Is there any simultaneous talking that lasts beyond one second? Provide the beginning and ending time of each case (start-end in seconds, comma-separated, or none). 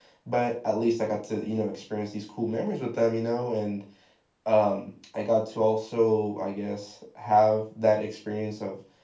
none